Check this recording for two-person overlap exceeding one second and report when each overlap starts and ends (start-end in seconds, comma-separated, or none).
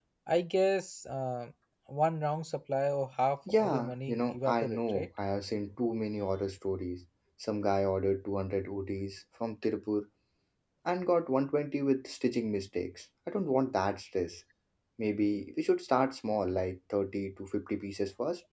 3.5-5.1